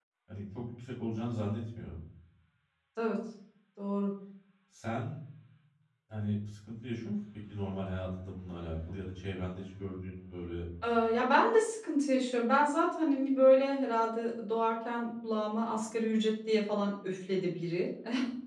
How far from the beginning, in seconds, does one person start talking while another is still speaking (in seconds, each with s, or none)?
none